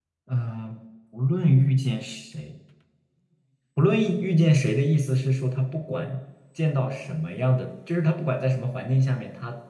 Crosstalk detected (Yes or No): No